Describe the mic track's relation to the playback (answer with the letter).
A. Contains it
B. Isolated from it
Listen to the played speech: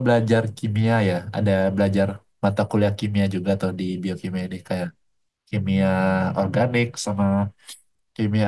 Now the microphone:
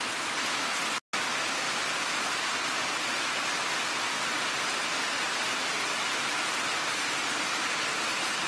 B